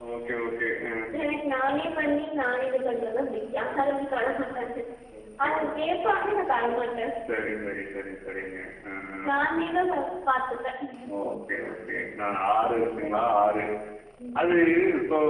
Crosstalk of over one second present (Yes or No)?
No